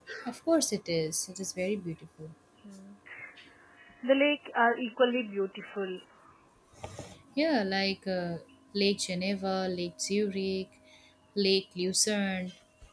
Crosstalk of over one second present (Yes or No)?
No